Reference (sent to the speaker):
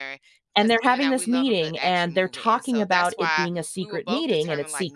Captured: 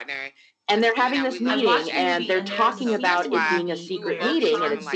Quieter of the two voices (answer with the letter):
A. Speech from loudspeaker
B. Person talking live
B